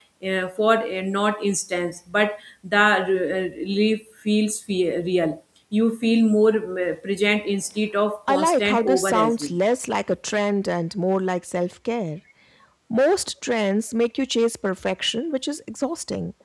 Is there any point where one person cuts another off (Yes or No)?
Yes